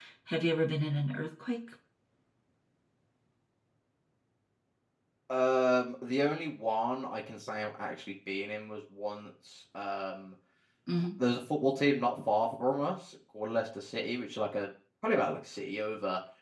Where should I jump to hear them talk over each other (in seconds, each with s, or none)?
none